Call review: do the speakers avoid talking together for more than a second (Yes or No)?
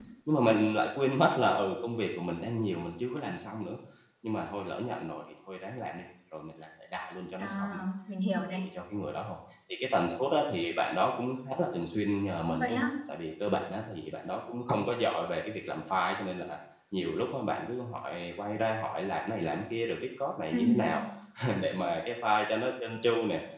Yes